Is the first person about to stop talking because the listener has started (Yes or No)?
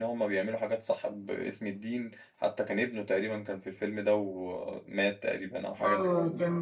Yes